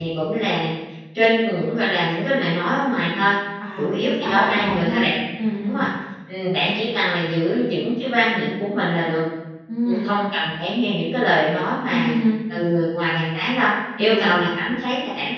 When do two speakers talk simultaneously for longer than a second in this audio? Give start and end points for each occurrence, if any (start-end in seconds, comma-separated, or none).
3.8-5.1